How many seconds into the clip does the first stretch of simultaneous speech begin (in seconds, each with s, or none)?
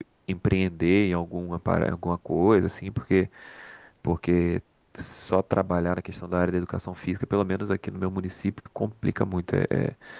none